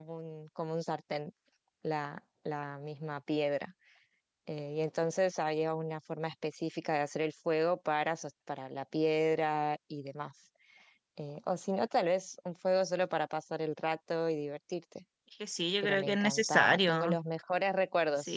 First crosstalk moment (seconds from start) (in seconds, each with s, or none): 15.8 s